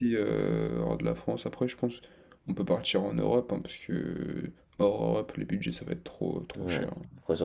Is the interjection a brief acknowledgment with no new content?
No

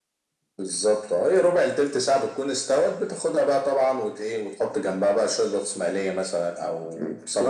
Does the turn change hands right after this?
Yes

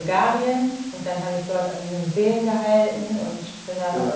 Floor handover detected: No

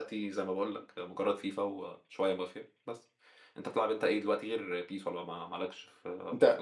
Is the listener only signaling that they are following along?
No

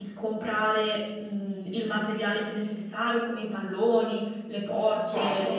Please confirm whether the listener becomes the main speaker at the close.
No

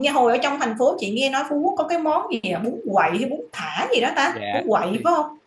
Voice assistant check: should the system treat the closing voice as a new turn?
Yes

